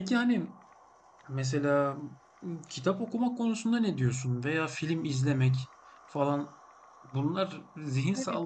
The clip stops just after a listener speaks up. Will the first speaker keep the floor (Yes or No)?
Yes